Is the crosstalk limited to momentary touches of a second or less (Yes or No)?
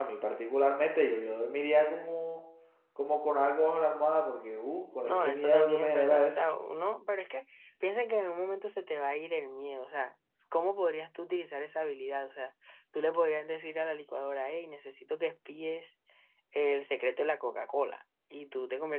No